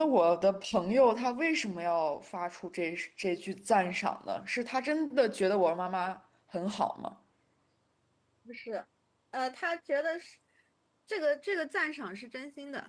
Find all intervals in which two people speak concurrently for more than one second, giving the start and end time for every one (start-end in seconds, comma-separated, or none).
none